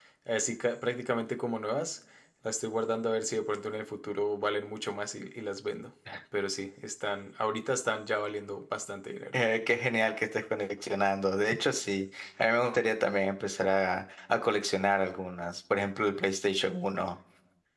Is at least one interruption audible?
No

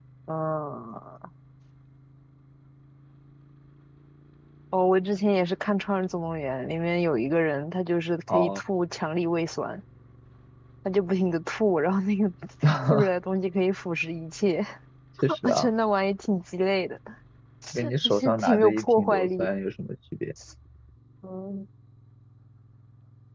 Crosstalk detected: Yes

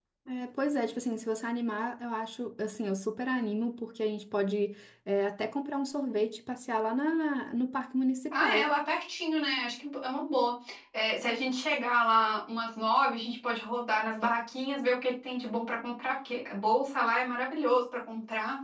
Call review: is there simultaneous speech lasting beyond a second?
No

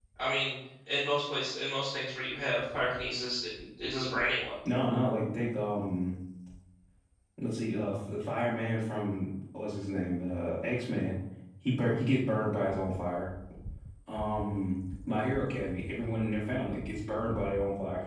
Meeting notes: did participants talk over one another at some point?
No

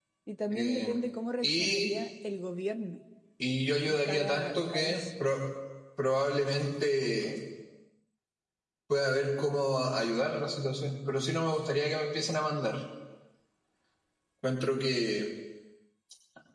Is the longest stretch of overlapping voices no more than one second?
No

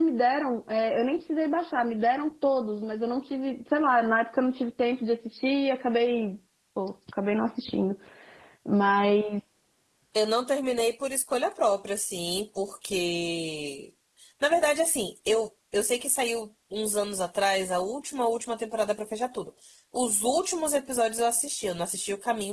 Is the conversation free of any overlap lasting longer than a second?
Yes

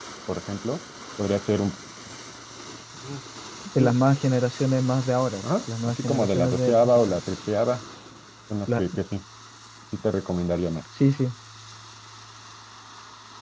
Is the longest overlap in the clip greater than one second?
Yes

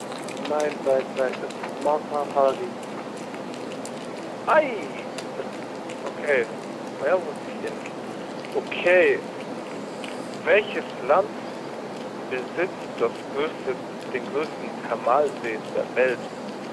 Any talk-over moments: No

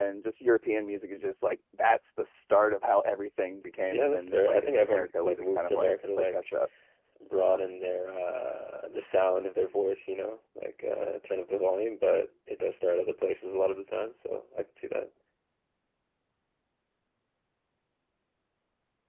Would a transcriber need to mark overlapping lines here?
Yes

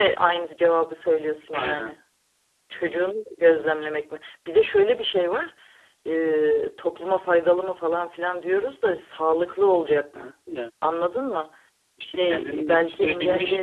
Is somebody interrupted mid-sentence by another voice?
Yes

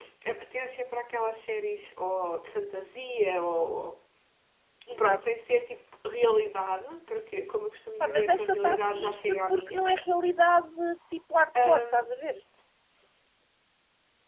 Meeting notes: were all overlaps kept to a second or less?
No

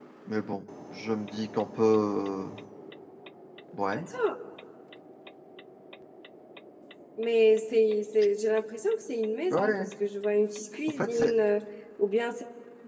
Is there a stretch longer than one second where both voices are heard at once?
No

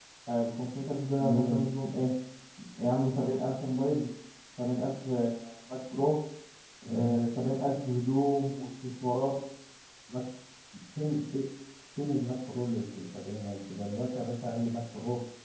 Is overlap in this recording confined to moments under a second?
Yes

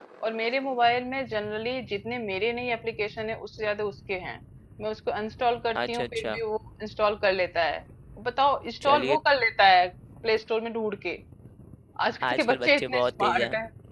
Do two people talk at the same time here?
Yes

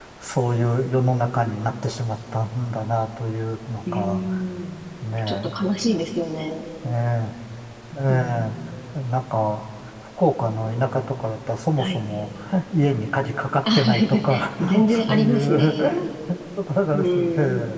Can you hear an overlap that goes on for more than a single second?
Yes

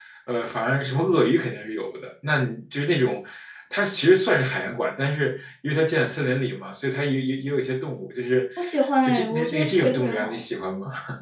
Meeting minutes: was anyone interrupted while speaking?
Yes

